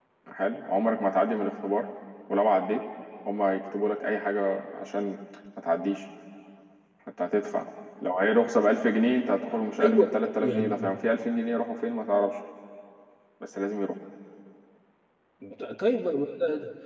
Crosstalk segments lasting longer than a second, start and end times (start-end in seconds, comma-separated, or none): none